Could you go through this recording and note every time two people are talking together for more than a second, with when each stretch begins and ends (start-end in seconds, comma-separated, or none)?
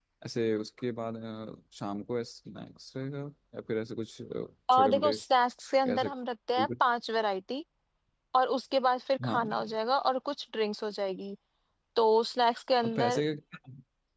none